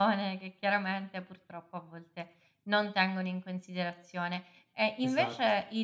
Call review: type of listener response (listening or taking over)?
listening